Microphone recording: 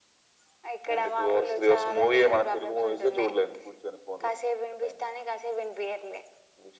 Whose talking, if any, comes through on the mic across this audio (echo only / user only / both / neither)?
echo only